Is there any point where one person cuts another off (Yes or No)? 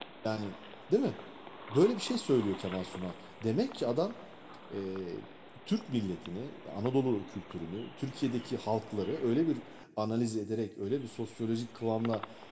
No